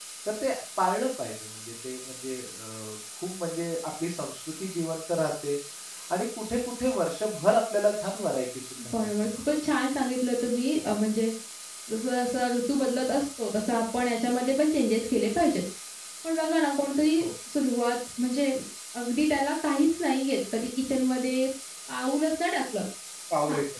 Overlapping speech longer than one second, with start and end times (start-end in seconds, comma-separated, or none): none